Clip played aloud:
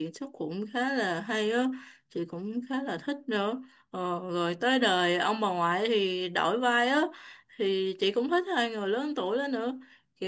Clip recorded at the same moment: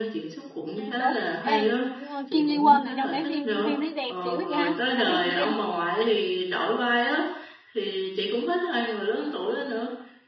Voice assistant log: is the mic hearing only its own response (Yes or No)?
No